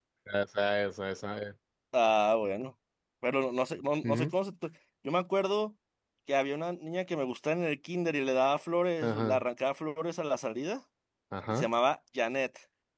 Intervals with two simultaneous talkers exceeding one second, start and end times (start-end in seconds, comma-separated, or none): none